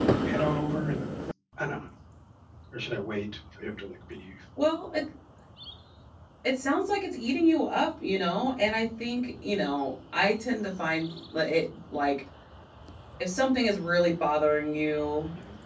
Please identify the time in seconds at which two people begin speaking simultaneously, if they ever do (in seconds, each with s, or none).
none